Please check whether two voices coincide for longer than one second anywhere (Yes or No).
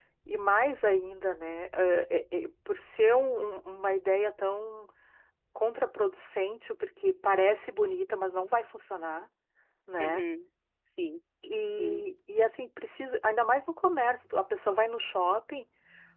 No